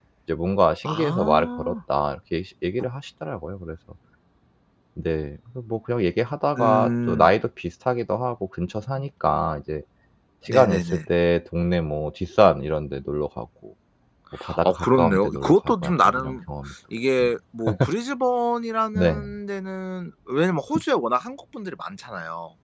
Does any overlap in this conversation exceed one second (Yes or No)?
Yes